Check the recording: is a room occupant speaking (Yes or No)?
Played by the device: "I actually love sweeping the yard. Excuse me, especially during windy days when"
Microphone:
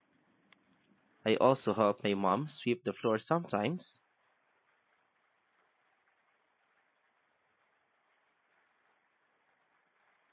Yes